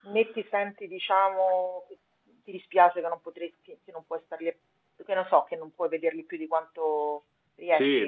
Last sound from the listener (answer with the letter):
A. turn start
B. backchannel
A